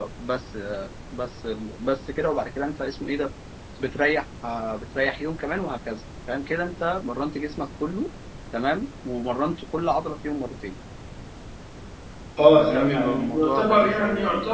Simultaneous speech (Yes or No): Yes